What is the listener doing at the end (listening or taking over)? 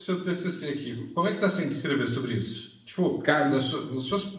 listening